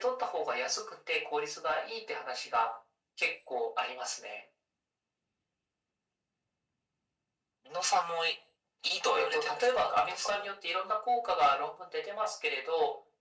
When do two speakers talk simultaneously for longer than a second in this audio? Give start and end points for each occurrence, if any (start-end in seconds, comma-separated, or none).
9.2-10.5